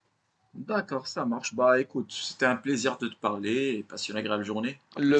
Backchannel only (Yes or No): No